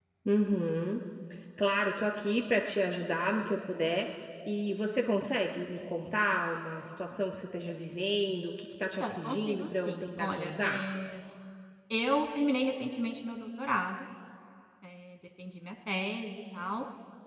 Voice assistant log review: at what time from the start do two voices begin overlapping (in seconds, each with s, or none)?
8.8 s